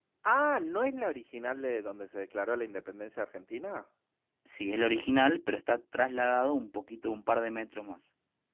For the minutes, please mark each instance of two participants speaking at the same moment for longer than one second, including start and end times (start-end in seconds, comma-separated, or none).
none